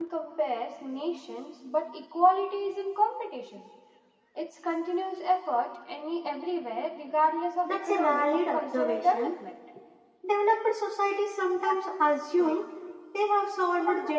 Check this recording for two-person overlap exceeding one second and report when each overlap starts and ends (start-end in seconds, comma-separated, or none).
7.6-9.3